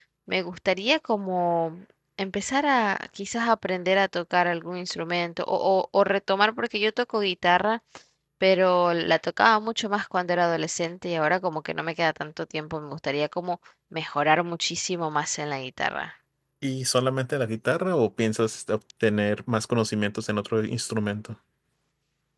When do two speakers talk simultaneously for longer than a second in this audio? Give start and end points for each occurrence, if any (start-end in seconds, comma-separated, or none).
none